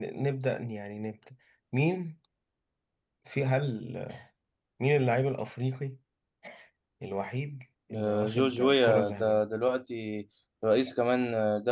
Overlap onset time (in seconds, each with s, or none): 7.9 s